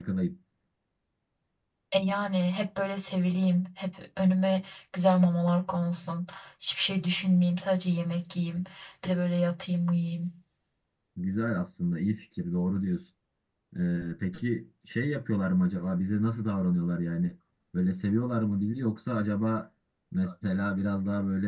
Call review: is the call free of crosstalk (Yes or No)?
Yes